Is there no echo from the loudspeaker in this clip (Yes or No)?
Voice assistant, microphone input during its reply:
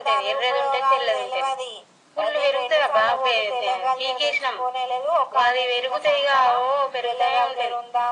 No